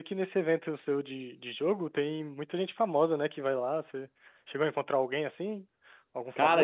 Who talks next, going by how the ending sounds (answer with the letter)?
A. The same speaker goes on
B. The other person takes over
B